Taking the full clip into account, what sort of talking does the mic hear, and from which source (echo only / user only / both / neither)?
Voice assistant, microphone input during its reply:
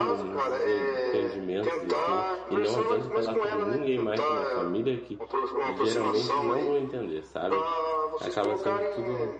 both